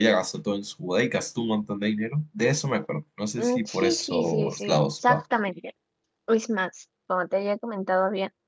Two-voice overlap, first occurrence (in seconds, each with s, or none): 3.4 s